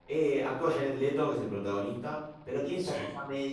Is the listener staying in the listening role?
Yes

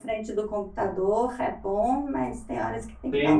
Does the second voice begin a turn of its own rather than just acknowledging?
Yes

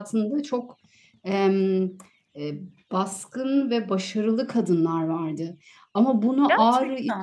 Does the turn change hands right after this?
No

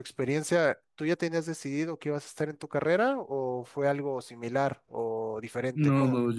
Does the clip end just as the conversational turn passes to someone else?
Yes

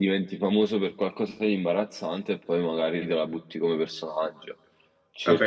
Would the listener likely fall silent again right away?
No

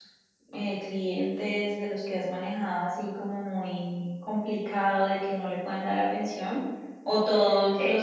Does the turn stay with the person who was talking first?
Yes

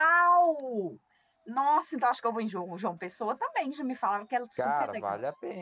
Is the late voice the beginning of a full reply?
Yes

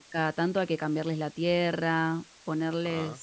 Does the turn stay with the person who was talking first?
Yes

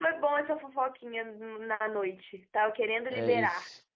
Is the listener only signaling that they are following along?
No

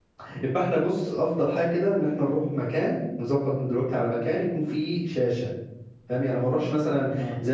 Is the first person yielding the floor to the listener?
No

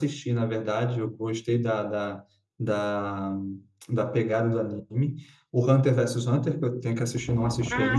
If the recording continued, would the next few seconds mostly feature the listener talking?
No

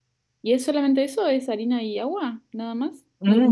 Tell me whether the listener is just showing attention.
No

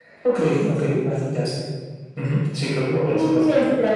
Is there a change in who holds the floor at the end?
Yes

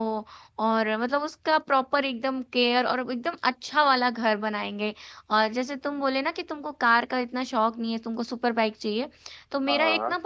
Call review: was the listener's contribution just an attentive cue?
Yes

